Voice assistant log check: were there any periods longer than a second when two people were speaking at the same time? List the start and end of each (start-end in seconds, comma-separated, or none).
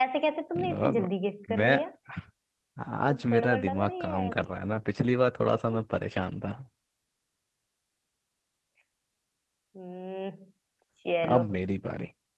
3.1-4.3